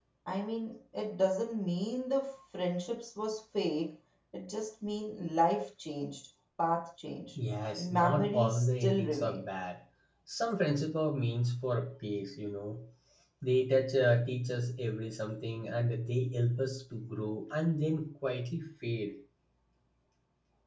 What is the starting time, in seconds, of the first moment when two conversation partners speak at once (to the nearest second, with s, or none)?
8 s